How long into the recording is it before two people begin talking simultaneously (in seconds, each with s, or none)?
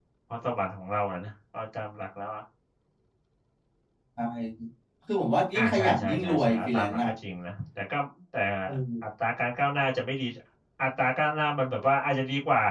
5.5 s